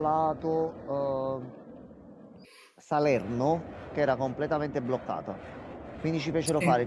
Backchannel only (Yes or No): Yes